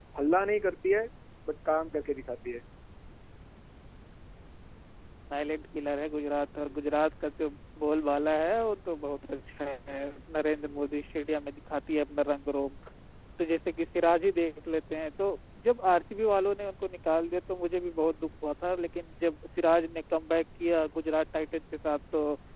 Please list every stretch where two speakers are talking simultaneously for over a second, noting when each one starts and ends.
none

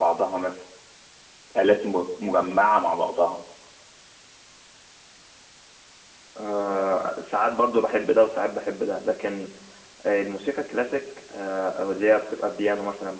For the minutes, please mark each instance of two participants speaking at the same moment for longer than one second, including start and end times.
none

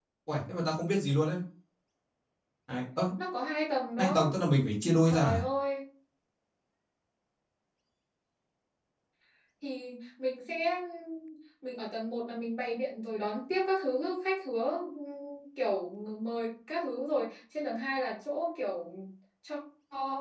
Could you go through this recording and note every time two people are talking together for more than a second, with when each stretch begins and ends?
none

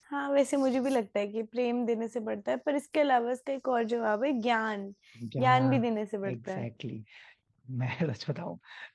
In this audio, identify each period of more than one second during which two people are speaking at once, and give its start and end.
none

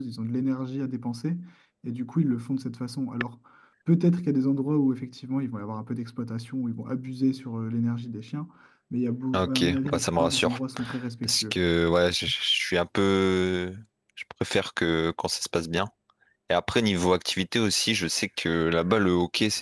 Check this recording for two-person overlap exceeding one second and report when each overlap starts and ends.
9.3-10.6

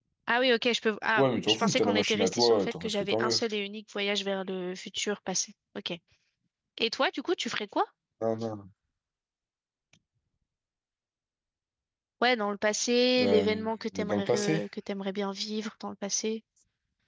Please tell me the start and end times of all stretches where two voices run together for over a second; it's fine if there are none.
1.2-3.4, 13.2-14.6

